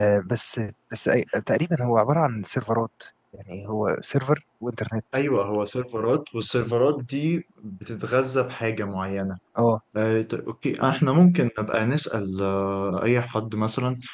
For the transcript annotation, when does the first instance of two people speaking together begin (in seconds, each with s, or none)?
none